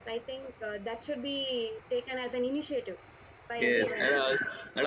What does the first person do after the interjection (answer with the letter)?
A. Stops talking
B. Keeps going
A